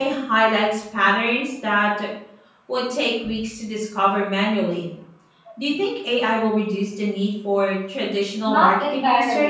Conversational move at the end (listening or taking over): taking over